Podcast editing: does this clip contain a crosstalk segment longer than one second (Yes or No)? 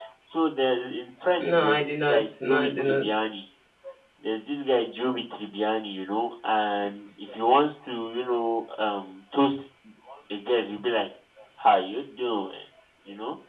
Yes